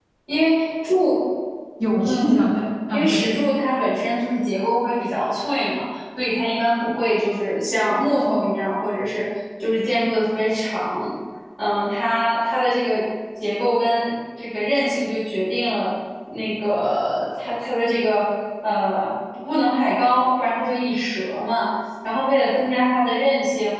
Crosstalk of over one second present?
No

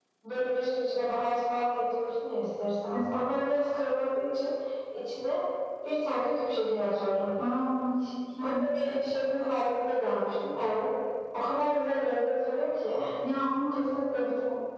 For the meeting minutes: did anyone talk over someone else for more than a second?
No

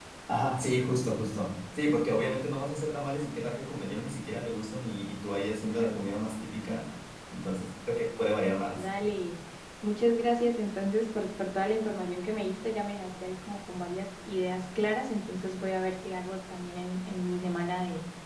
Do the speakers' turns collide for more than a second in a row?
No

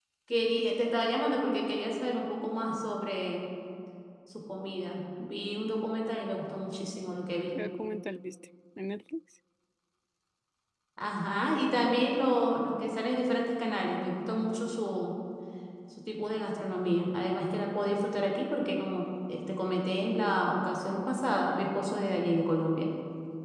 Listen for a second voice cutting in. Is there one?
No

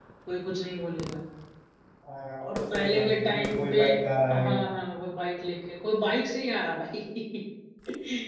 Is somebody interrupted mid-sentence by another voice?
Yes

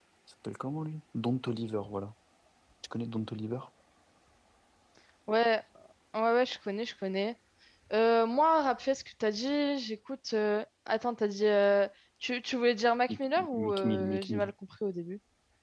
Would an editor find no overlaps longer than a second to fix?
No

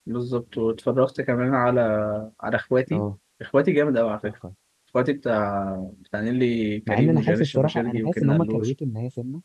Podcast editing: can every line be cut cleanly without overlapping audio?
No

